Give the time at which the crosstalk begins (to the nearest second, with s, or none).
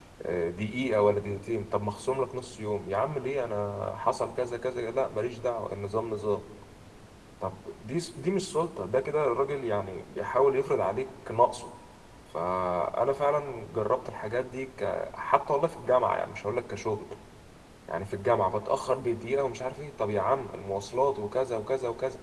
none